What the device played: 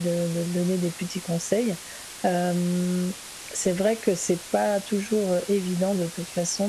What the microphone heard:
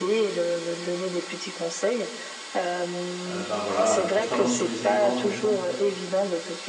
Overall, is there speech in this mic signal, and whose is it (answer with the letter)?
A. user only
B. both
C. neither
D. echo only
B